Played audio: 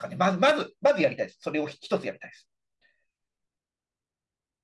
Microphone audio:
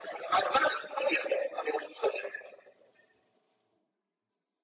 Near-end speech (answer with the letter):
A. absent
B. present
A